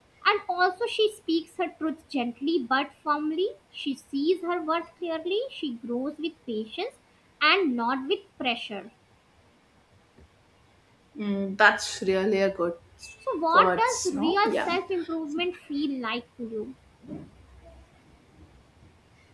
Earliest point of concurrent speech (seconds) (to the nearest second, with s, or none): 14 s